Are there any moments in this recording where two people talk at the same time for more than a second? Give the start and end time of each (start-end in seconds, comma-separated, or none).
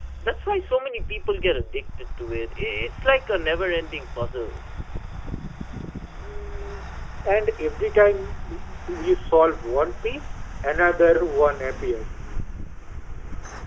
none